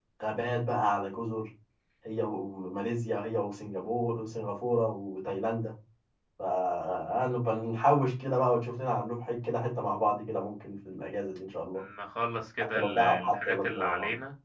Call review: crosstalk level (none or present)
present